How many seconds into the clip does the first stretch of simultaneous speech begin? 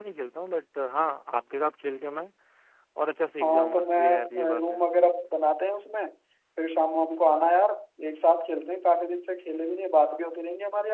3 s

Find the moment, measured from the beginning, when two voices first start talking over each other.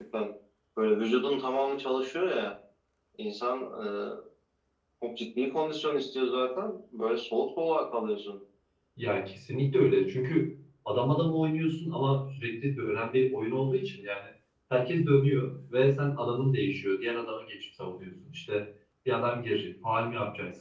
none

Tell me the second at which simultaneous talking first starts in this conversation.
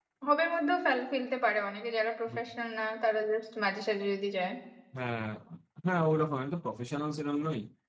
none

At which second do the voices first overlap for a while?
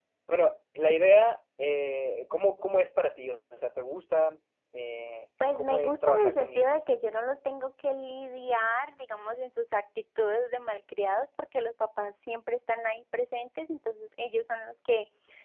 5 s

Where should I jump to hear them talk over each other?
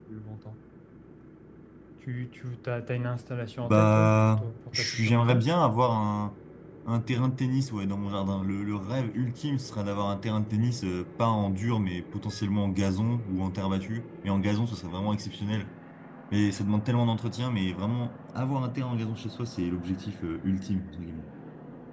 4 s

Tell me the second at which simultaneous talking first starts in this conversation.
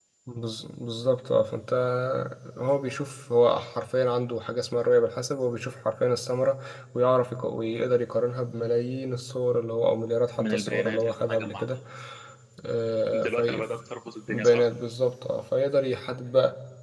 10 s

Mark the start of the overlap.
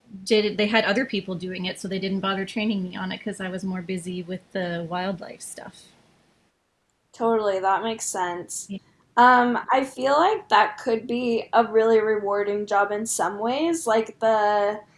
none

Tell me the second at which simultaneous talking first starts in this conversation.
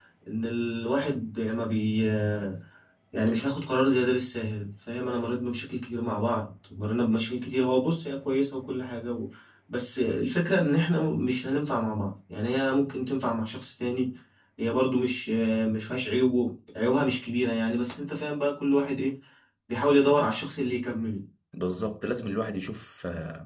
none

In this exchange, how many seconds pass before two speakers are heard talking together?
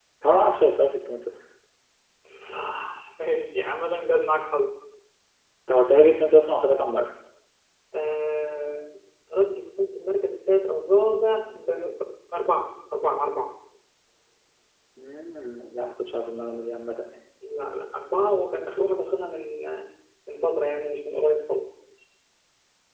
none

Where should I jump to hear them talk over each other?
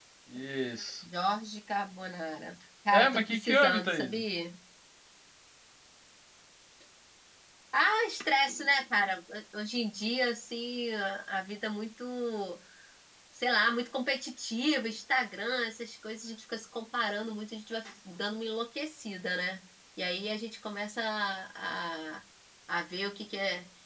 3 s

